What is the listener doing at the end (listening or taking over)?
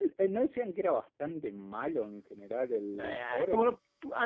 taking over